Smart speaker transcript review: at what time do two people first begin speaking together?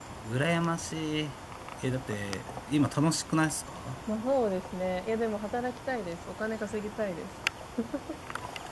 none

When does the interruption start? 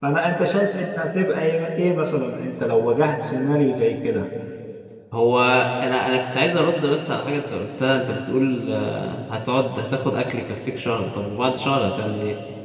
none

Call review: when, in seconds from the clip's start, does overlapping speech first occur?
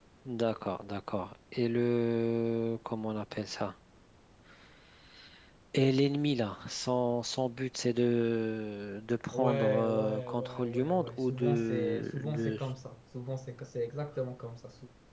9.3 s

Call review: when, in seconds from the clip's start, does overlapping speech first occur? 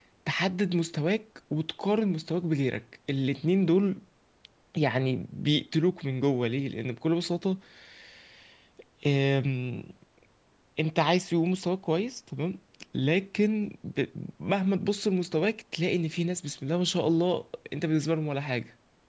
none

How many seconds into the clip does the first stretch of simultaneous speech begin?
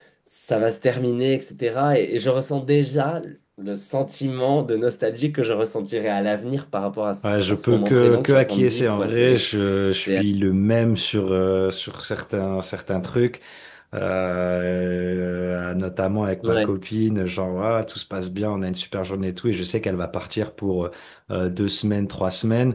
7.5 s

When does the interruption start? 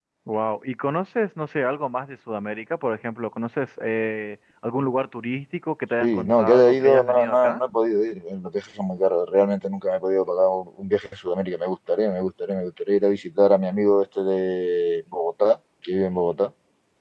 6.0 s

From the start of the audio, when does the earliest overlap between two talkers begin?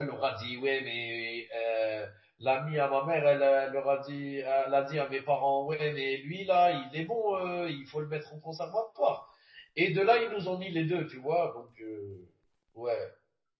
none

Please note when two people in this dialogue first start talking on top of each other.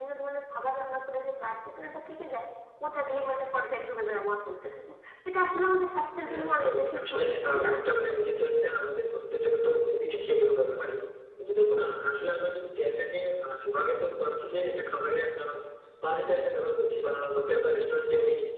6.2 s

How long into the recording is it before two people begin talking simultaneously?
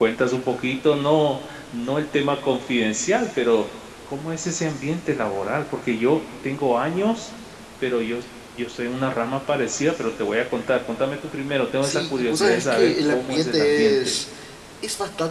11.8 s

